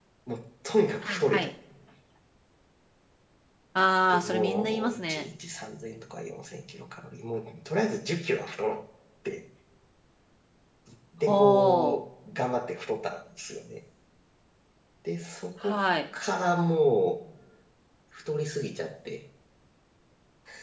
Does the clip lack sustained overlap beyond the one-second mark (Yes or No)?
No